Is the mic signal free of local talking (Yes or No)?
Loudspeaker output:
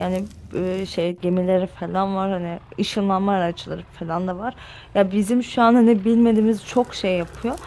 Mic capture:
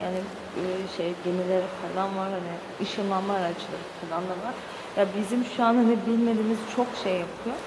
Yes